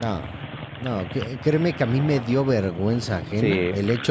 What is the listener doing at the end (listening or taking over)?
listening